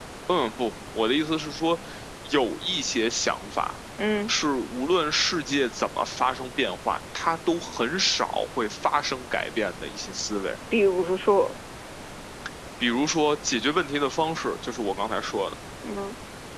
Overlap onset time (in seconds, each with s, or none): none